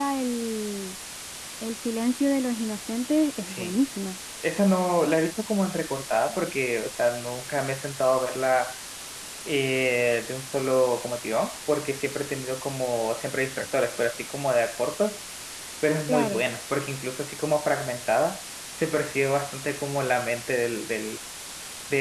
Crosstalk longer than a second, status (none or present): none